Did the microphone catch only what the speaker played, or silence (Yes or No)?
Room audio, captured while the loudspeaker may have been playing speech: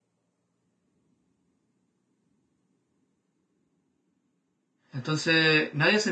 No